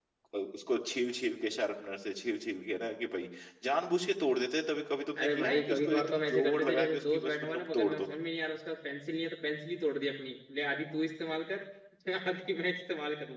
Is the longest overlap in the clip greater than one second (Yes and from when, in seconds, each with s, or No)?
Yes, from 5.2 s